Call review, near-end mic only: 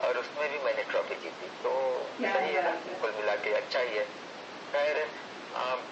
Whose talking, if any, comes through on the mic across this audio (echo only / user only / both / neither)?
both